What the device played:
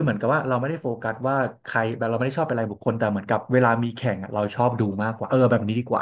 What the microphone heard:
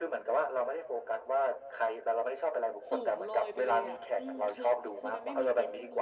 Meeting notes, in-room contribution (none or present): present